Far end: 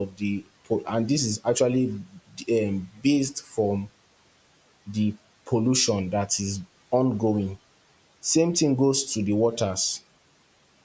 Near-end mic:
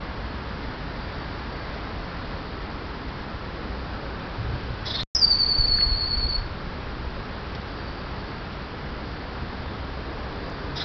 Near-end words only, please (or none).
none